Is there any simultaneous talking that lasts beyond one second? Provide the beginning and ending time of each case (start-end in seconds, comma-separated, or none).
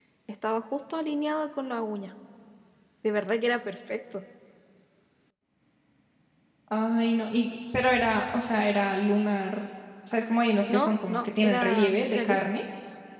10.6-12.4